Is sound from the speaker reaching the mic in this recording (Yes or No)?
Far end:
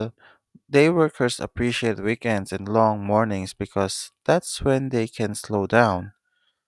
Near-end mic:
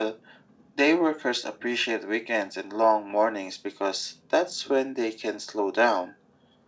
Yes